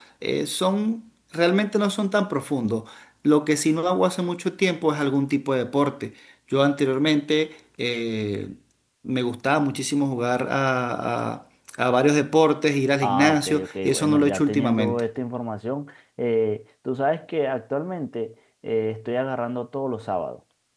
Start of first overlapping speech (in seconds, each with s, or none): 13.0 s